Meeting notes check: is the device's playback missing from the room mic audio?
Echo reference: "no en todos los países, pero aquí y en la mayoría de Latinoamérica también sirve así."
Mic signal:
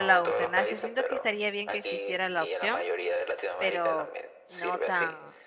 No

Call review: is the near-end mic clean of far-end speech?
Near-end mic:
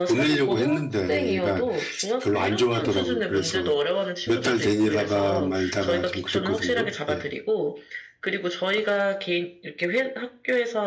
No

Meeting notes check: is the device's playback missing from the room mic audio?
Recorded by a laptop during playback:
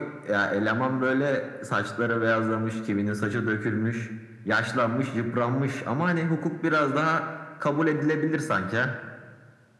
No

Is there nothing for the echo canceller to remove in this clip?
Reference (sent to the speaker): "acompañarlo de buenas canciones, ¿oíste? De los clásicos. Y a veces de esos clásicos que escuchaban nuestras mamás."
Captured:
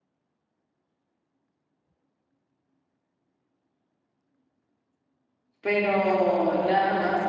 Yes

